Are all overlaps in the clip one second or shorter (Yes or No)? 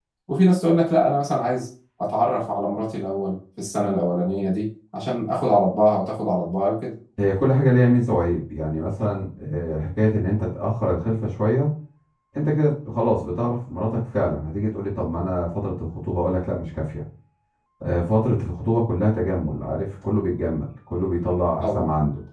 Yes